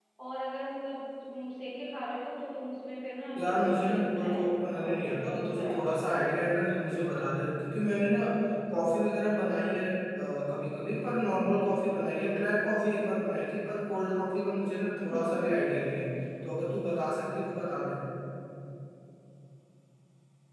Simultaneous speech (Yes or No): Yes